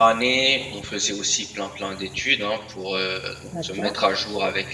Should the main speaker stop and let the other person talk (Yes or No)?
No